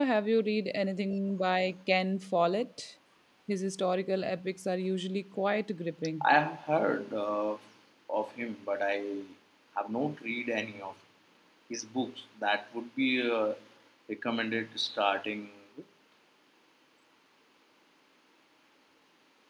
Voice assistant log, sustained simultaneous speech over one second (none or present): none